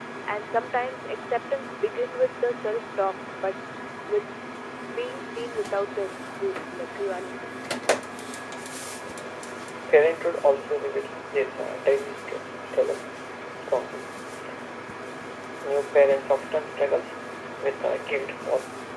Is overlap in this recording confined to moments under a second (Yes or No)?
Yes